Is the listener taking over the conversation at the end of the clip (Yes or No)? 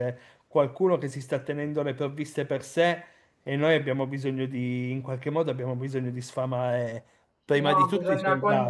Yes